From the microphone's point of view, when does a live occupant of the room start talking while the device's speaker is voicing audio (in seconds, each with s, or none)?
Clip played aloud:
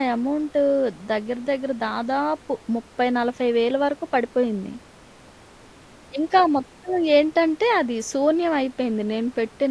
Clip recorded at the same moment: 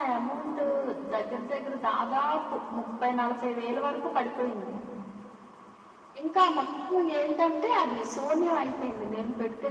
none